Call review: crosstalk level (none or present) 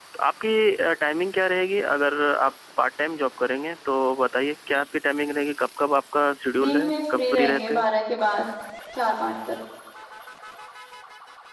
present